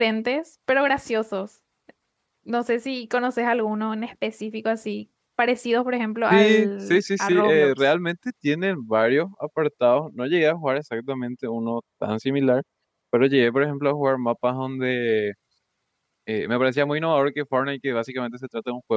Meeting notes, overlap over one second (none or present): present